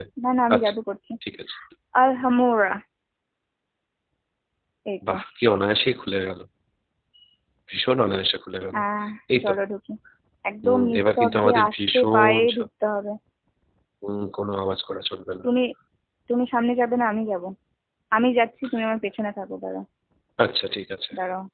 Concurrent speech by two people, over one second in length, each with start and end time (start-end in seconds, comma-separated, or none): 10.6-12.7